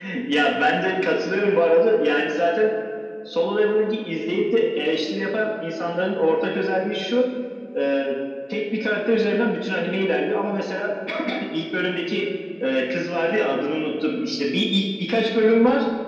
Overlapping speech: No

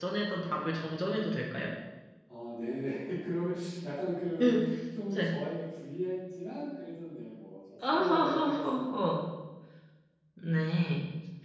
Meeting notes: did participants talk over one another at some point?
Yes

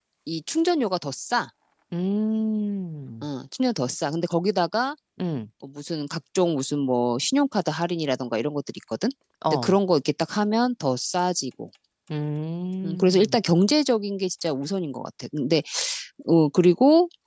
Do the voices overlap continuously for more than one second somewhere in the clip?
No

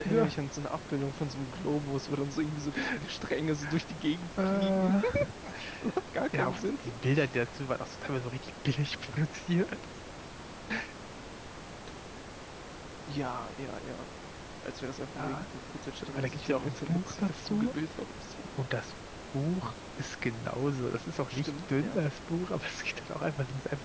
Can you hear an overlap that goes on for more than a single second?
Yes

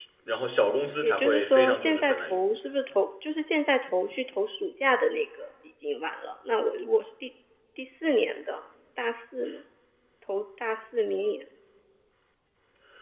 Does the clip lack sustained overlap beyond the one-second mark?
No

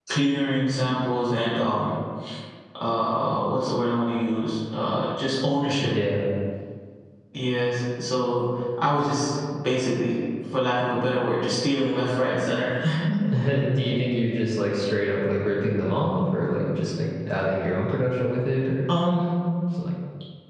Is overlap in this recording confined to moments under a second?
Yes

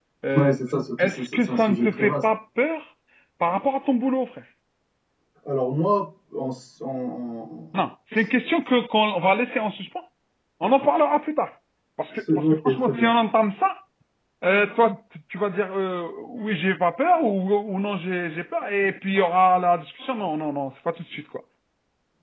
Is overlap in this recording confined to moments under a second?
No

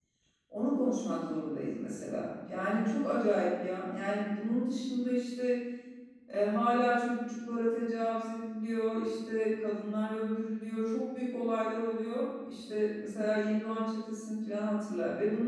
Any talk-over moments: No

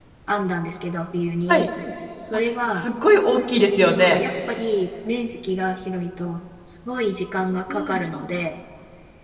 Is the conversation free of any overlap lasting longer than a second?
Yes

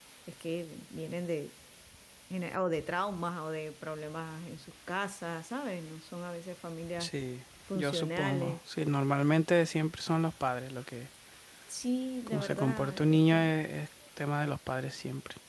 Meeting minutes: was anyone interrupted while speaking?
Yes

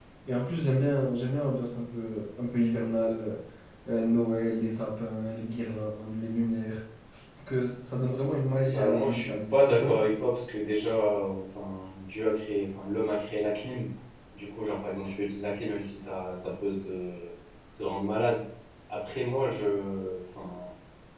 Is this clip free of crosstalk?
No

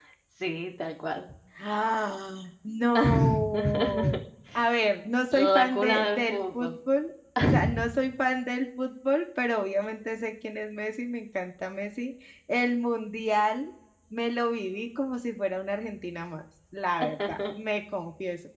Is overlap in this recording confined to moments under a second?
No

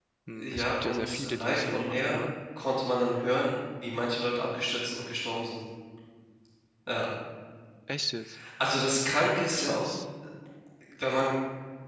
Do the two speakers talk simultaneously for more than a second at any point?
Yes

